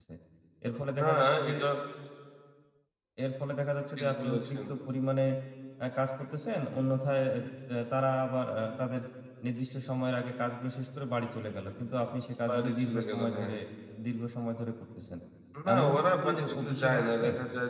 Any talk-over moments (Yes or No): Yes